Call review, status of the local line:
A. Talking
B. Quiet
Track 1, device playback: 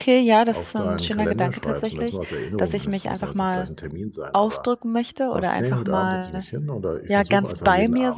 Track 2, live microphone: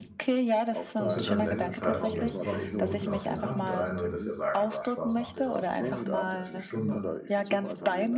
A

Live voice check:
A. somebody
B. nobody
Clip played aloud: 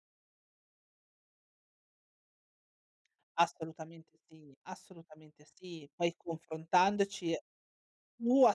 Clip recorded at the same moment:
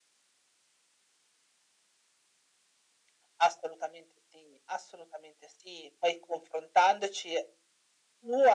B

